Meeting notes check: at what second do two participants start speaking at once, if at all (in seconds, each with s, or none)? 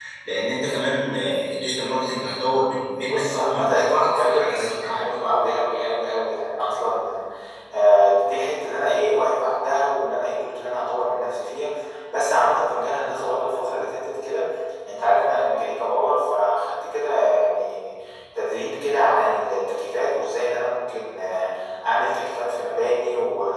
3.0 s